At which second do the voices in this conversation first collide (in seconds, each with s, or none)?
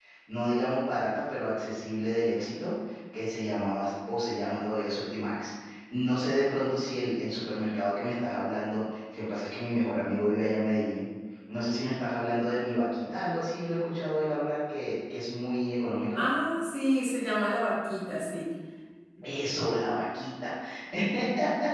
none